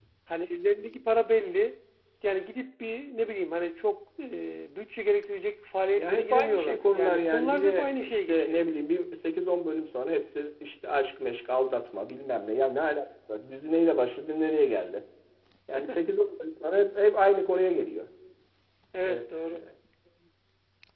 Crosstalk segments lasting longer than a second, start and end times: 6.0-8.6

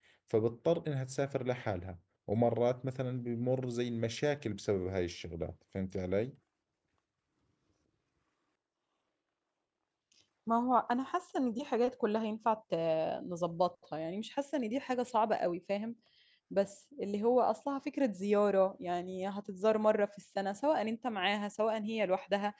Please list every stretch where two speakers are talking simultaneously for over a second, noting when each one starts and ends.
none

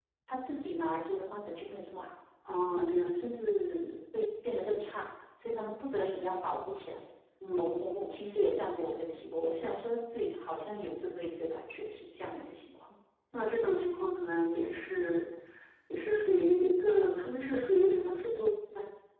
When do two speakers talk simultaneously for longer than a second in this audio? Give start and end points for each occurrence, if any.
none

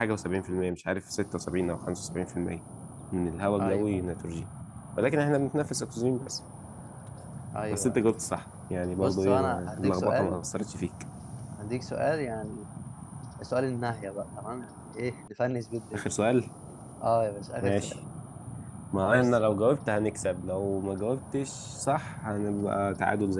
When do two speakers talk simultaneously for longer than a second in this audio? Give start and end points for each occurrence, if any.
9.0-10.4

